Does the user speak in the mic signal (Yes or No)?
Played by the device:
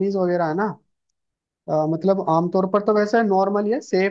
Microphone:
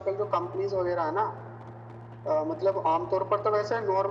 No